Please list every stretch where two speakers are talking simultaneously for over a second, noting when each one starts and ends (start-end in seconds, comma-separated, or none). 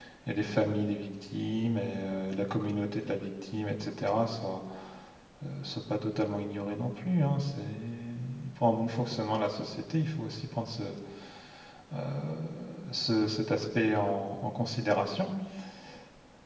none